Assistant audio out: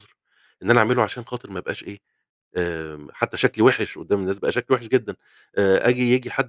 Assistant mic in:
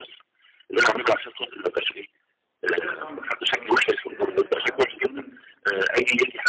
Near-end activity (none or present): present